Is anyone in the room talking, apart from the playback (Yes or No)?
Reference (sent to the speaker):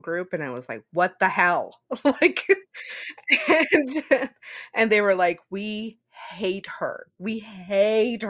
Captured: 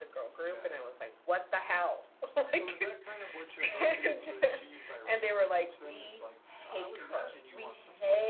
Yes